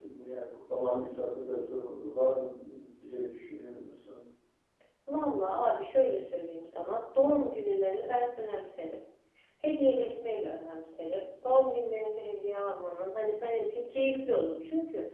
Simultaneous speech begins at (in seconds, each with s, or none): none